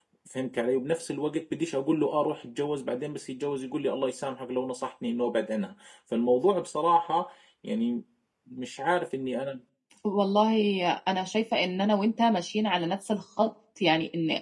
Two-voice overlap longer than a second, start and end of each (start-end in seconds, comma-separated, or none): none